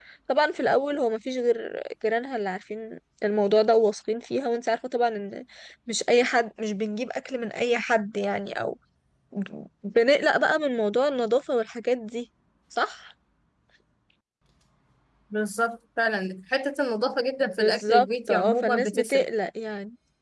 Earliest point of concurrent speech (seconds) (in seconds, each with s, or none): 17.6 s